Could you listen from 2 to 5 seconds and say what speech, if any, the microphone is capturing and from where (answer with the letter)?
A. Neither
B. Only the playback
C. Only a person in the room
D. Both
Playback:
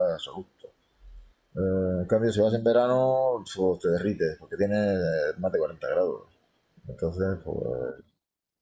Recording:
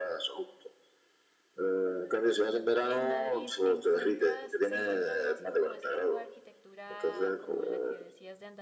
D